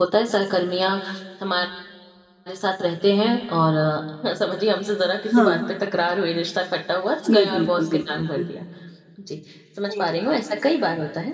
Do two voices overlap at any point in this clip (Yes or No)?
Yes